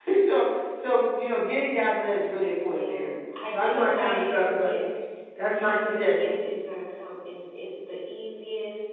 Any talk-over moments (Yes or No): Yes